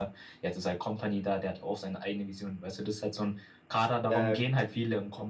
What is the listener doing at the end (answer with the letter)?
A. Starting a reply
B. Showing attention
B